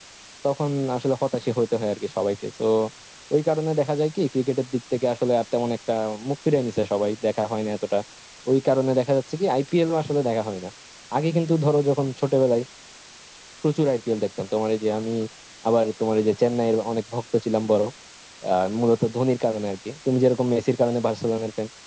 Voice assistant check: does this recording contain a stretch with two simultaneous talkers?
No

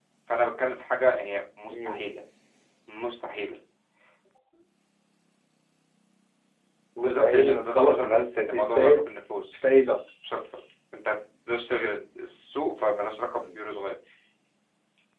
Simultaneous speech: Yes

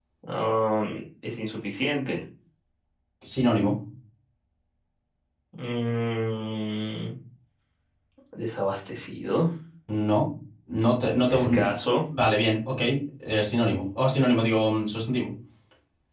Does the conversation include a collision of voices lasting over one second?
No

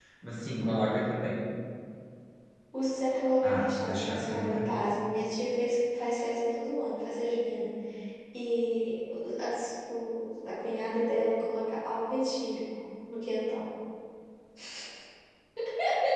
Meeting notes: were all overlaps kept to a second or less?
No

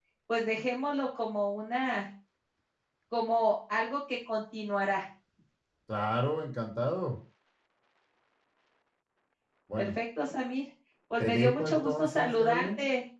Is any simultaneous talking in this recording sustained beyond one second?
Yes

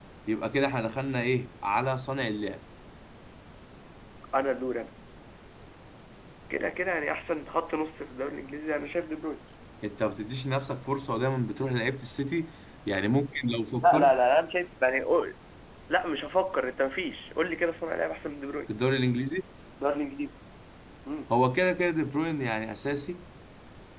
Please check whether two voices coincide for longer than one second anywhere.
No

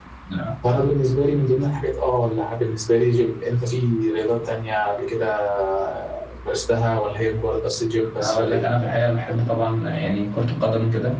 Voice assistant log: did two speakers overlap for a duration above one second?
No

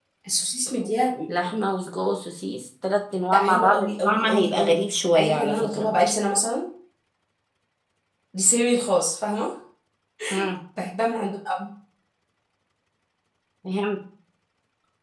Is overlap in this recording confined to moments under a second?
No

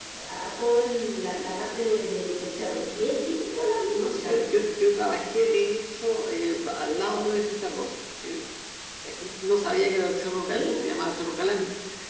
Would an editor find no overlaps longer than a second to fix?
Yes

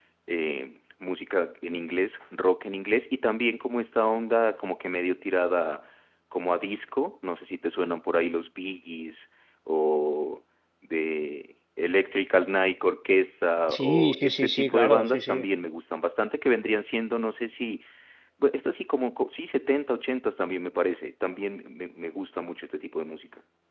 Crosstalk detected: Yes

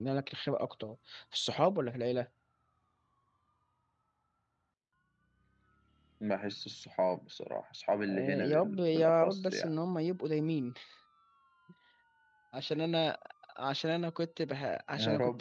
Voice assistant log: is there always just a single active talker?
No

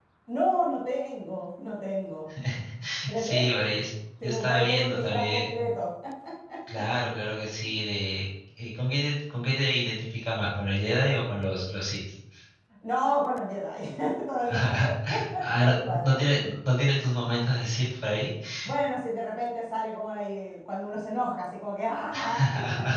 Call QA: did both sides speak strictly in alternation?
No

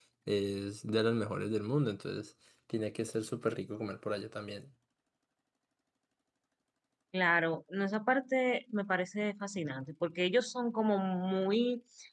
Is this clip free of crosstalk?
Yes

